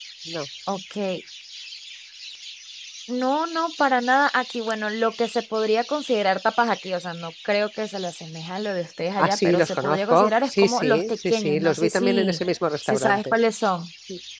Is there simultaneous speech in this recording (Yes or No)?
Yes